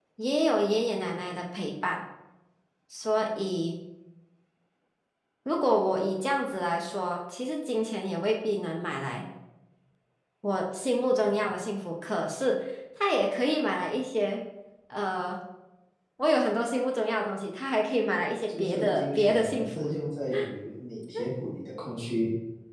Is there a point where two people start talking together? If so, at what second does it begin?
18 s

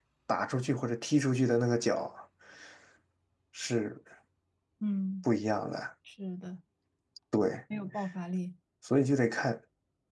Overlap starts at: none

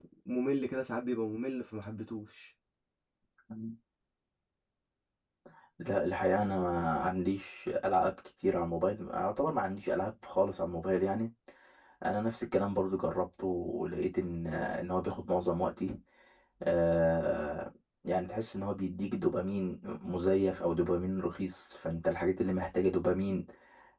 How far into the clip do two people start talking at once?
none

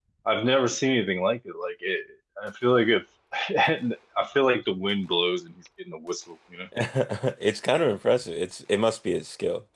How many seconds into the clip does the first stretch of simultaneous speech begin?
none

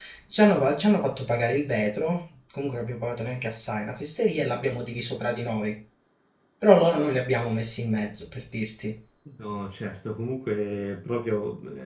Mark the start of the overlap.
none

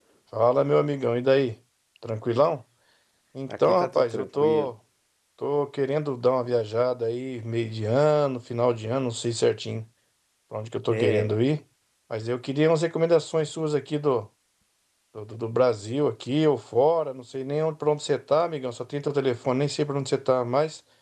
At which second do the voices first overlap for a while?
3 s

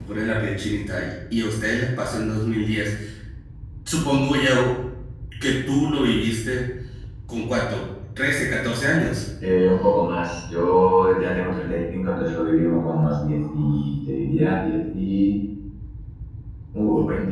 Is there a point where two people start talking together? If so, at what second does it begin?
none

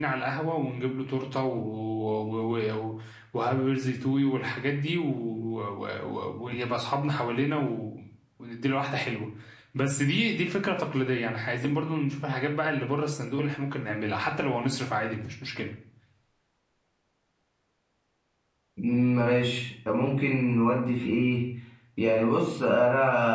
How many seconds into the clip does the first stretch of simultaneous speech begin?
none

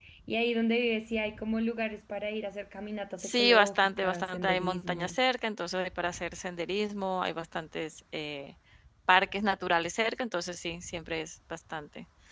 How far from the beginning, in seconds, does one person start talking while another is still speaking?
3 s

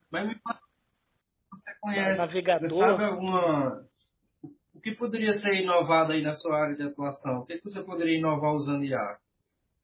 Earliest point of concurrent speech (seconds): 2 s

